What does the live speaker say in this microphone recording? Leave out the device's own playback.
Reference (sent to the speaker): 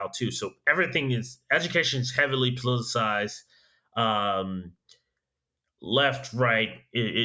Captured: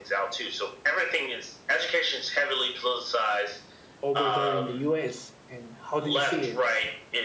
over there in the U.S. and how do you see it,

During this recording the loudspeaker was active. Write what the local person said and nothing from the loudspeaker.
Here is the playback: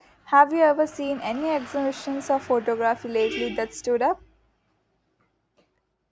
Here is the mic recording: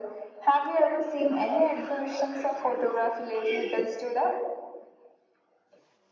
none

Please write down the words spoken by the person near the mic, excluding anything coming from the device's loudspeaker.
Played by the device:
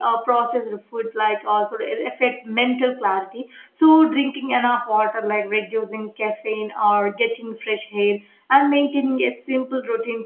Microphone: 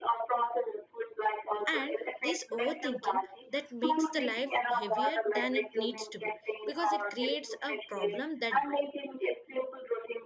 and this overthinking that makes the life heavier than it needs to be because it creates a problem that

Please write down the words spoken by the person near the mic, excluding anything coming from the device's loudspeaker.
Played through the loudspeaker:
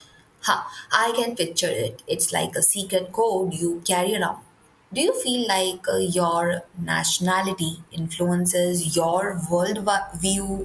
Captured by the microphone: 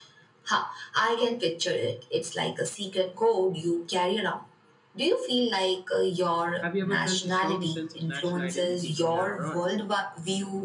Have you ever felt a stronger sense of national identity when you're abroad?

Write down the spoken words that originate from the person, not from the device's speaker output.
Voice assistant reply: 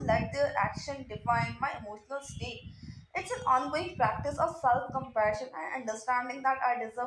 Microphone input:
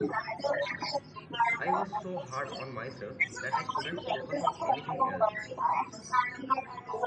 I was so hard on myself that I couldn't focus on anything else.

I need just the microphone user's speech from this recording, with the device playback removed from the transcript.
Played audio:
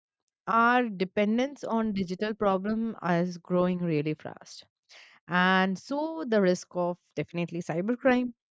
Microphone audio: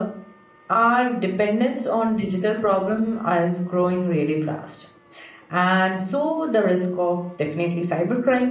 none

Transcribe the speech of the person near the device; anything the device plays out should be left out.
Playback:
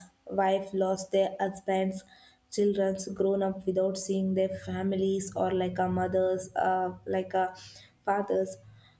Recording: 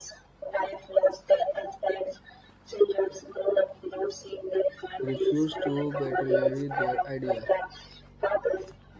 refused to betray their ideal.

